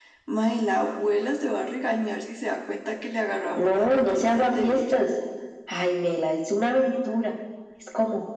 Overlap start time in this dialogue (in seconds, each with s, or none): 3.6 s